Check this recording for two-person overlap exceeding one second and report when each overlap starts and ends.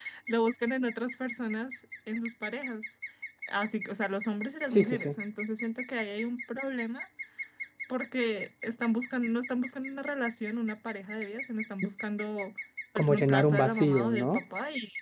13.0-14.4

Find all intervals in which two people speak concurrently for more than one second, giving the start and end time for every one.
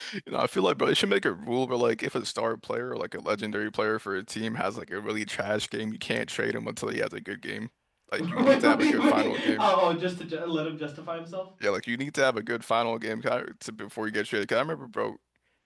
8.3-9.7

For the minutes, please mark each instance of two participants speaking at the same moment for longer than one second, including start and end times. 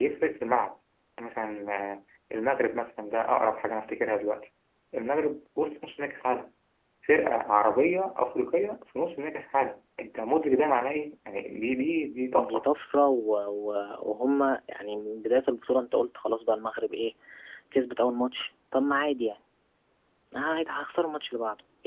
none

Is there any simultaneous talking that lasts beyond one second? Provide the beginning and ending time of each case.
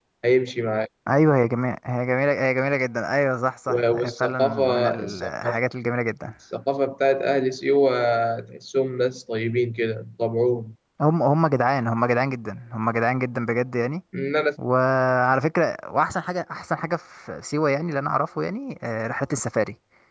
3.7-5.7

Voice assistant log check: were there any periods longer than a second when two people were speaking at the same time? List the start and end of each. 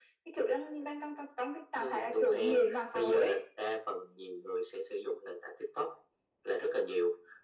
1.8-3.4

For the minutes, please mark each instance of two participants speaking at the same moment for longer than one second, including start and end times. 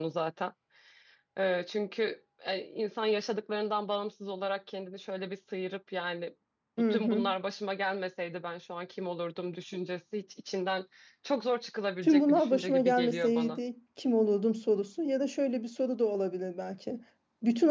12.0-13.6

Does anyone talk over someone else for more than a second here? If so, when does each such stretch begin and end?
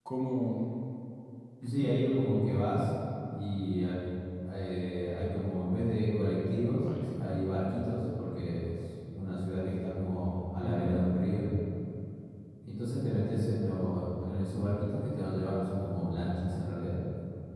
none

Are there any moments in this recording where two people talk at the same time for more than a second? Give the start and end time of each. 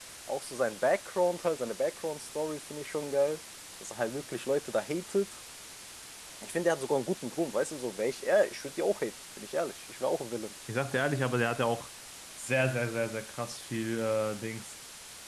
none

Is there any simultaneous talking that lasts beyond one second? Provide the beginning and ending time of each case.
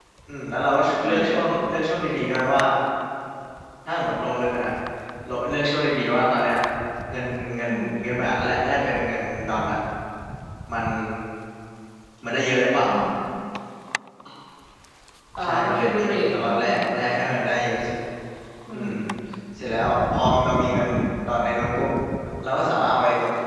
15.4-16.8

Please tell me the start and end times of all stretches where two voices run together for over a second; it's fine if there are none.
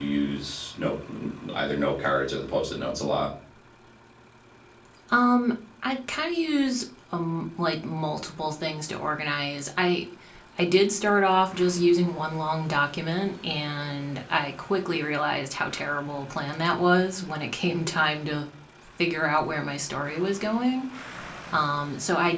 none

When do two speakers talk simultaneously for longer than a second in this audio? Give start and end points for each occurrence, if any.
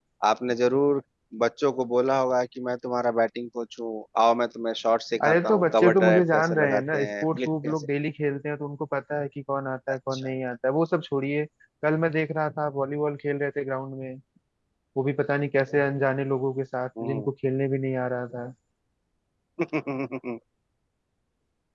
5.2-7.9

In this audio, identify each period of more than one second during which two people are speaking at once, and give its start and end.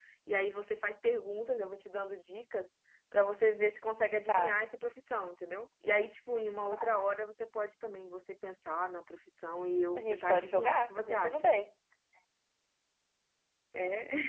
9.9-11.5

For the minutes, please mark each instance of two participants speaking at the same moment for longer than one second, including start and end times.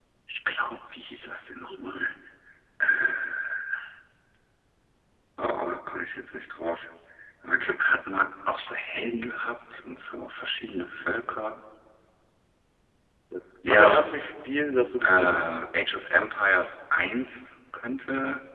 none

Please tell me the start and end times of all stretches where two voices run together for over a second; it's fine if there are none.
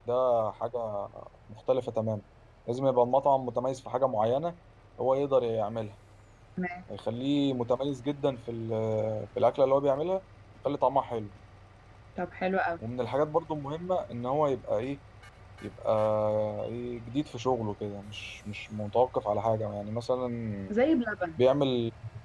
none

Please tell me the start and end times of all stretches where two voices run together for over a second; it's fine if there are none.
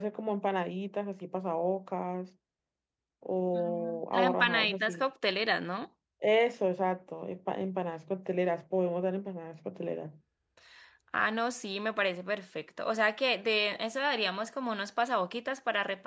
3.5-5.0

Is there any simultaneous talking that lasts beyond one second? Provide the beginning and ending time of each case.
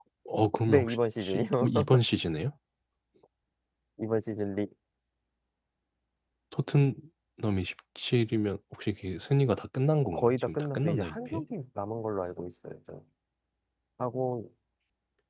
10.1-11.4

